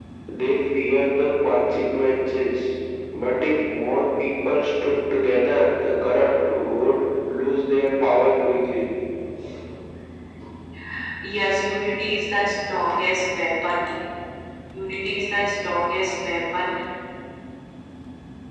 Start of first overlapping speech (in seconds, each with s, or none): none